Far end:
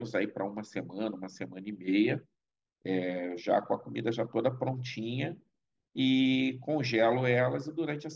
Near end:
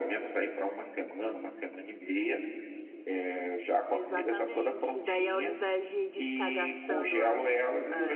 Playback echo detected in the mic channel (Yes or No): Yes